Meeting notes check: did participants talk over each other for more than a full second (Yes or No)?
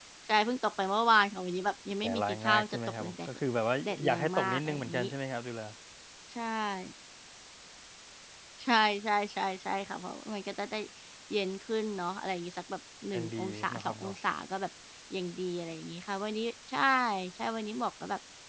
Yes